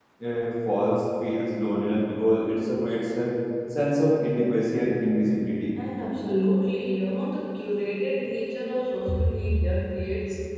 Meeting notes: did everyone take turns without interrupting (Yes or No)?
Yes